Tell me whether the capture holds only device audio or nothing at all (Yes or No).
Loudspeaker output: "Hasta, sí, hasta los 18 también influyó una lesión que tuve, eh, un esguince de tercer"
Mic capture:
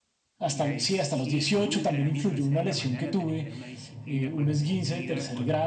No